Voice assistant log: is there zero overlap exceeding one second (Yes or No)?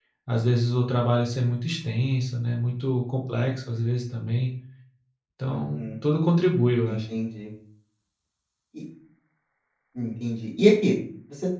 Yes